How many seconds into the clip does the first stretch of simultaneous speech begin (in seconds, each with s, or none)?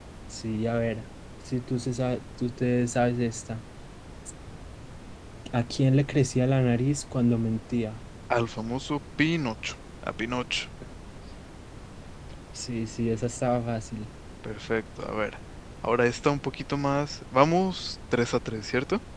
none